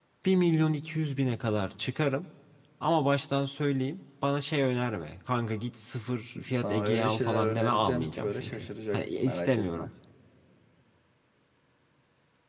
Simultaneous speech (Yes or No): Yes